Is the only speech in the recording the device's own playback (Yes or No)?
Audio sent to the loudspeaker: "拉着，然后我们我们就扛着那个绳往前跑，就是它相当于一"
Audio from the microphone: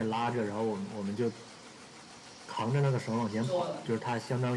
No